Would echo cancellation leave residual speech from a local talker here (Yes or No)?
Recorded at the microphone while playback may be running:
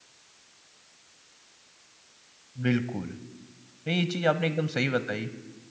Yes